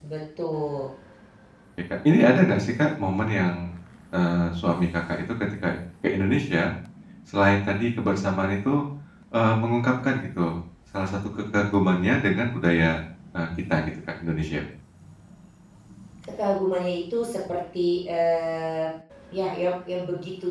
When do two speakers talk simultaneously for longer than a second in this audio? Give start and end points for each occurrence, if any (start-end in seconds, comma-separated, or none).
none